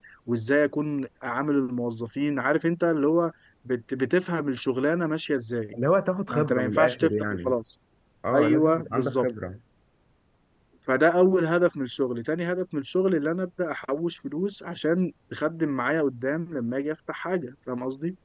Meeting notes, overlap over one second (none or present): present